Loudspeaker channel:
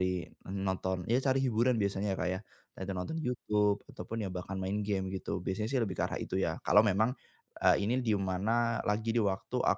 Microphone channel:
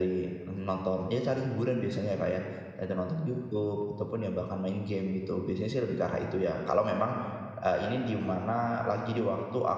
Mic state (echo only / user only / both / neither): echo only